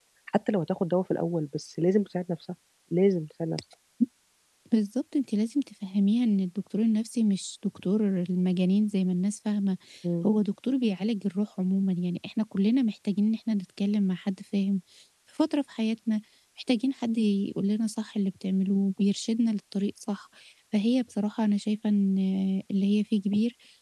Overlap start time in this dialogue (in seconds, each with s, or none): none